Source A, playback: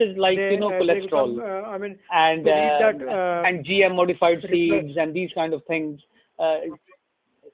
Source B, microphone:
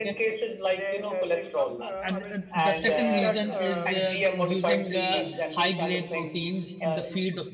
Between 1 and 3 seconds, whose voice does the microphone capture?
both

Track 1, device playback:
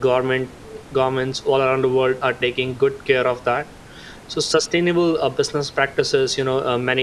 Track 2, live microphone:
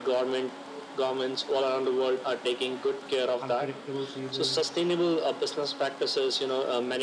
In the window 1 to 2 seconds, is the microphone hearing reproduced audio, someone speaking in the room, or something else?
echo only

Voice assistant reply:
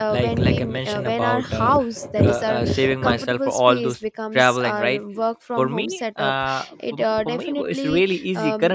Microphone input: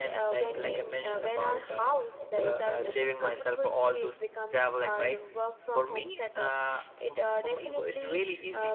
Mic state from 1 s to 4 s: echo only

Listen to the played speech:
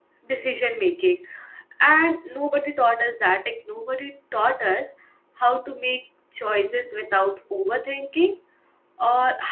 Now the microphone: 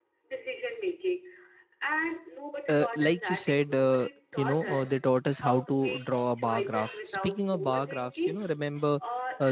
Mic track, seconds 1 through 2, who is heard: echo only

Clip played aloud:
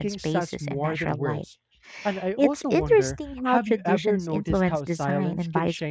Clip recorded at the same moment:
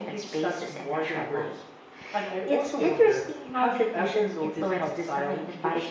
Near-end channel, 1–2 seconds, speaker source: echo only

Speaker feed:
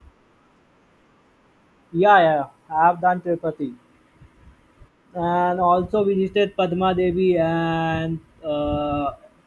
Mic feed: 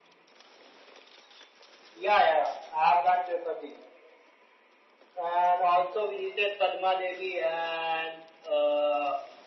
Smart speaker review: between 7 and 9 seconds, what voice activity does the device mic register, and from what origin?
echo only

